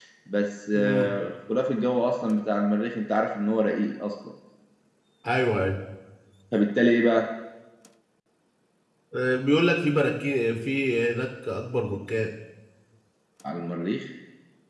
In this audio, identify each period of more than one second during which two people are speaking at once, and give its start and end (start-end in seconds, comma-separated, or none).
none